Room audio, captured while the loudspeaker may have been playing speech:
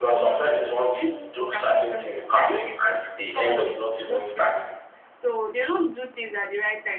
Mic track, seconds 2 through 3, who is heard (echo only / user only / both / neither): both